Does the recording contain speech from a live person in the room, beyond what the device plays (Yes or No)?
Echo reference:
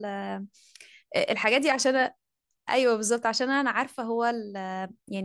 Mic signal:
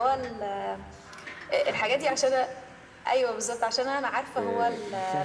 Yes